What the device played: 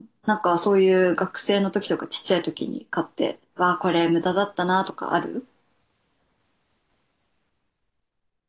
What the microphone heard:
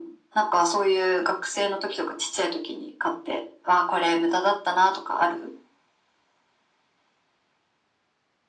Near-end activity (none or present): none